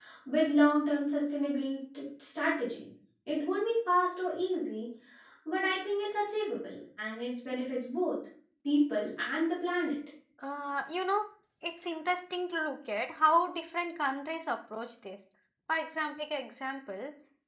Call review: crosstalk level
none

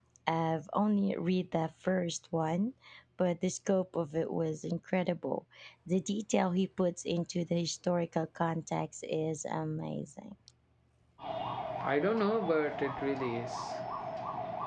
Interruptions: none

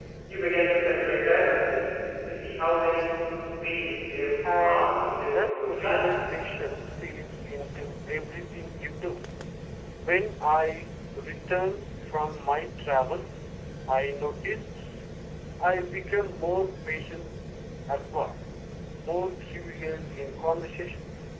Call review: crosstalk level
present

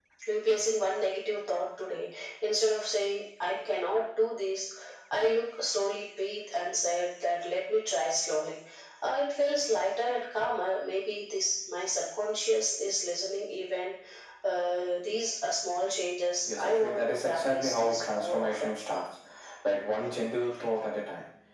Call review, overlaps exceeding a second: present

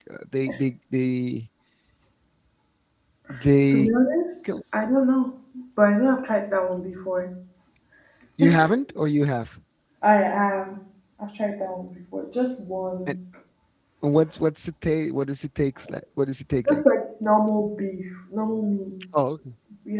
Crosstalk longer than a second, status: none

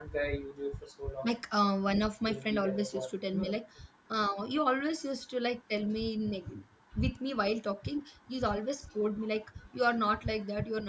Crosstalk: present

